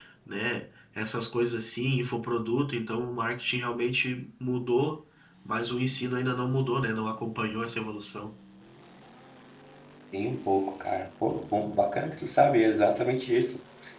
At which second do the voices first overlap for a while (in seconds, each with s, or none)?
none